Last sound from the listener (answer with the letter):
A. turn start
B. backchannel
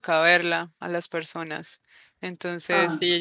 B